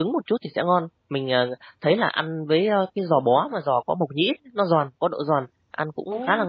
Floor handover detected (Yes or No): No